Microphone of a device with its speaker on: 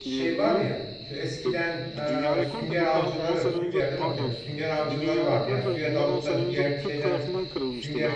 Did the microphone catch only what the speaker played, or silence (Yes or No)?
No